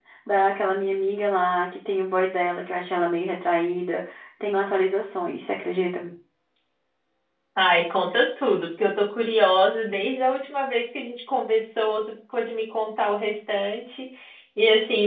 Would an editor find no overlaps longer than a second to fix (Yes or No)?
Yes